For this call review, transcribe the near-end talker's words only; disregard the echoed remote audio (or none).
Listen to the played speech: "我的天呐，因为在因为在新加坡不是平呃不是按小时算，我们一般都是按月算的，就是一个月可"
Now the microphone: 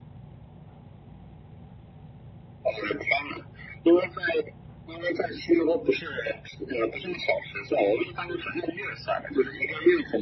none